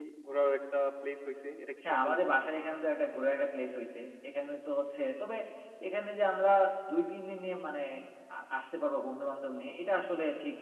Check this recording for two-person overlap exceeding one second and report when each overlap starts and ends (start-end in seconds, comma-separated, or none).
none